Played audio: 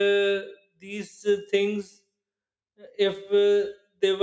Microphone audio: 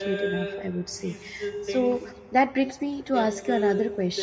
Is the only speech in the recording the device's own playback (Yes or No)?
No